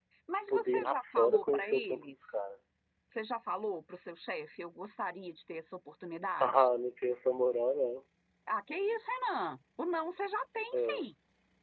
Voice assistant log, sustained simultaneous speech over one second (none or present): present